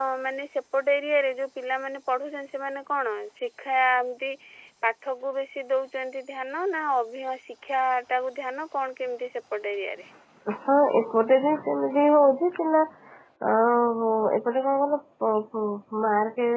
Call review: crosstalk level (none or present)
none